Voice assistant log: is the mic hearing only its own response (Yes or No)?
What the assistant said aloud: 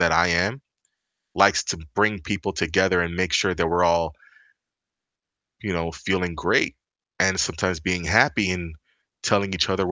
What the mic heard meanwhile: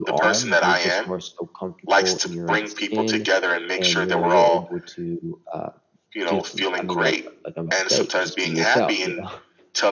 No